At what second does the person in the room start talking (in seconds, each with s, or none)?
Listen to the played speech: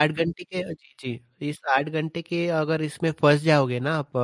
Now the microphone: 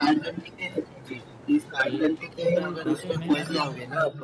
1.8 s